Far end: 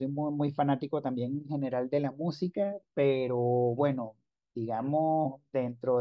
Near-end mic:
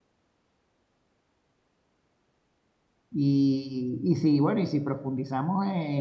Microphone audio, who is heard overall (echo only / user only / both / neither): user only